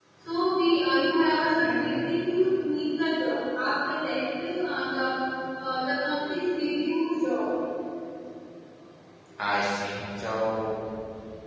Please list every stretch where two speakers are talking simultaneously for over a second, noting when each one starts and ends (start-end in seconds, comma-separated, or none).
none